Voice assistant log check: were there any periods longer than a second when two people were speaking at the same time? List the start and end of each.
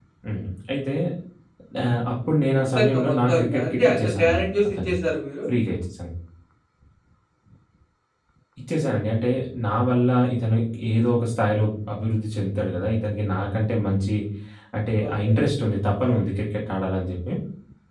2.6-5.0

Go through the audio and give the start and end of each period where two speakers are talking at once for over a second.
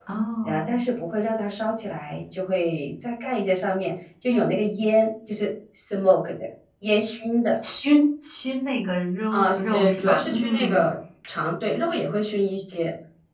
9.3-10.8

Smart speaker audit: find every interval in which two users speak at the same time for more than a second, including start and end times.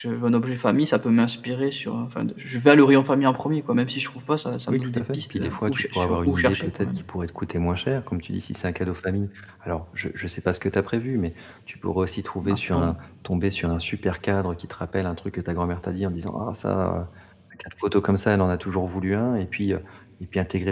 4.7-6.9

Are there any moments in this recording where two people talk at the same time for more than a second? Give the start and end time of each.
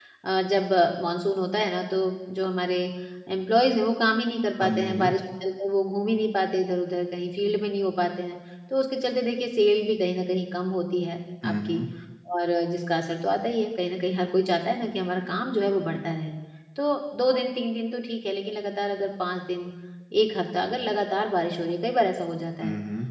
none

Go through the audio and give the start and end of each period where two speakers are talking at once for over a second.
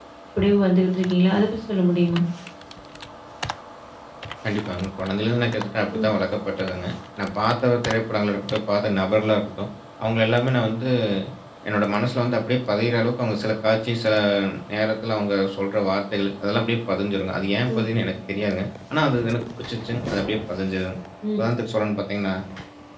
none

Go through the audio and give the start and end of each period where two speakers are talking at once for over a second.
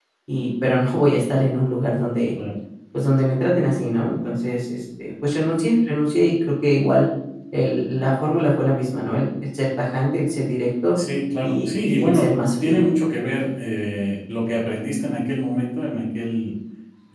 11.4-12.8

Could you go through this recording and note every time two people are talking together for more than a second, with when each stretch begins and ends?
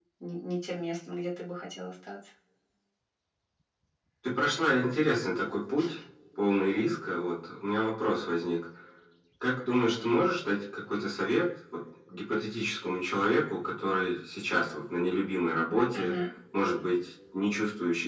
none

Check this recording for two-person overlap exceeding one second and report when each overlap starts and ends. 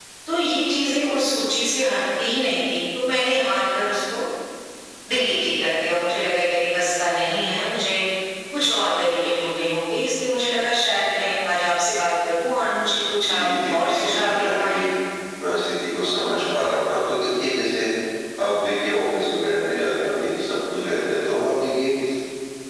13.3-14.8

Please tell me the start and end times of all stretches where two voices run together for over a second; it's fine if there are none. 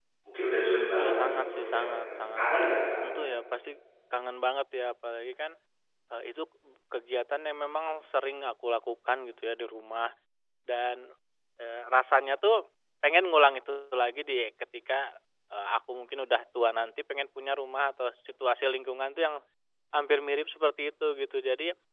1.0-2.8

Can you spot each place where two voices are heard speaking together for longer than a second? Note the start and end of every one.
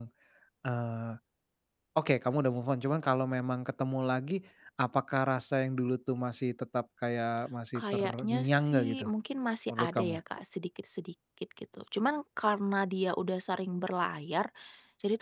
7.8-9.1

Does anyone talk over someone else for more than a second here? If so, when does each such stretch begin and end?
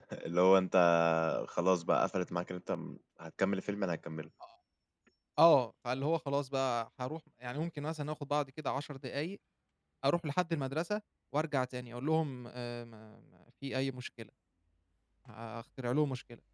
none

